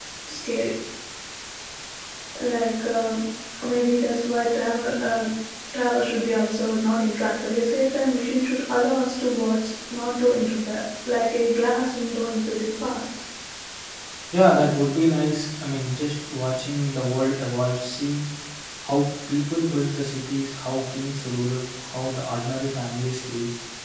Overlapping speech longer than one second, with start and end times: none

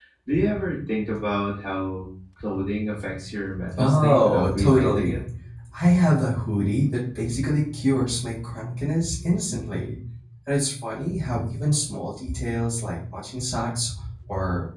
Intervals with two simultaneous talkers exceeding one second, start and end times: 3.8-5.2

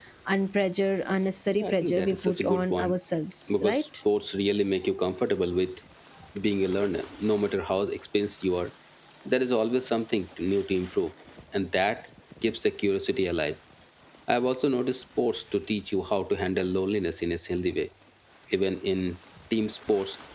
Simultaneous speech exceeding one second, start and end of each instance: 1.5-3.0

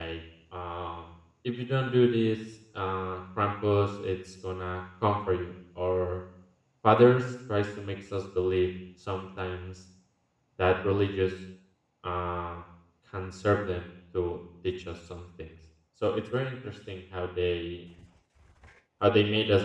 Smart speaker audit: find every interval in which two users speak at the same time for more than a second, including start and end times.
none

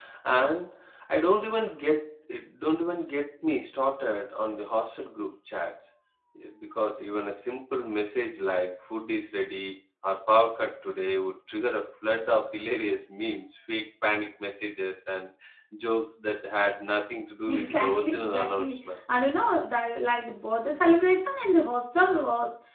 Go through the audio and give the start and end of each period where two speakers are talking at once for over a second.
17.5-18.8

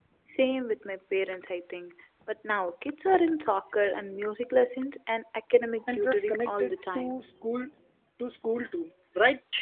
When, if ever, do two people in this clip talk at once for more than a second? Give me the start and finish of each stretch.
5.9-7.2

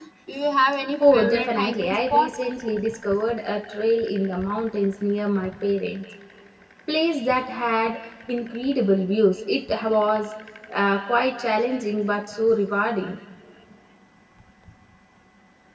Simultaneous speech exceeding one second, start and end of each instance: 1.1-2.3

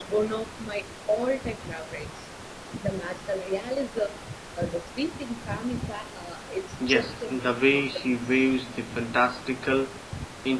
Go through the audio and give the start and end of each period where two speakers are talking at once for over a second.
6.9-8.4

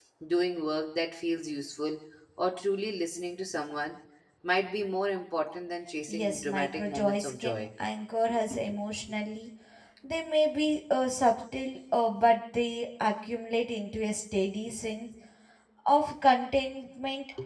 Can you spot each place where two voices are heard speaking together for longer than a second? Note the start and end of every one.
6.1-7.6

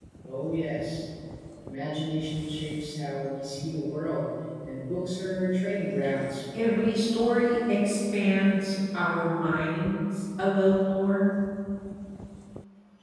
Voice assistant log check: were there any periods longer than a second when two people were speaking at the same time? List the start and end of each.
none

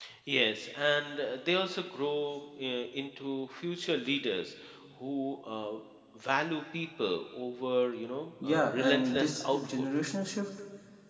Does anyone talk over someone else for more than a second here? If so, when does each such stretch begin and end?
8.4-9.8

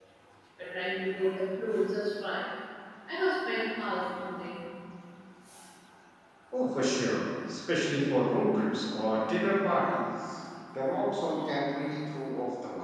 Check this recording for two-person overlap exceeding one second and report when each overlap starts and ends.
none

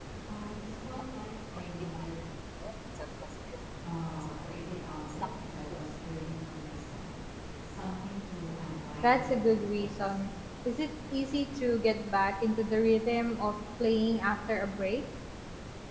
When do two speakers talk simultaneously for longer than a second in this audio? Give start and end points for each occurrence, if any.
9.0-10.3

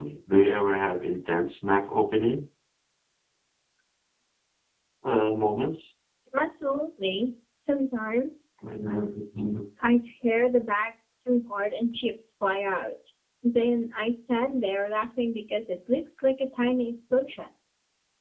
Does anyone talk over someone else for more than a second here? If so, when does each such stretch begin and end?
none

